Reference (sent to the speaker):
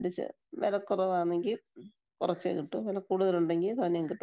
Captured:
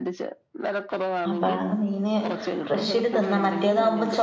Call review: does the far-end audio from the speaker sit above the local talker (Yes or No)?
No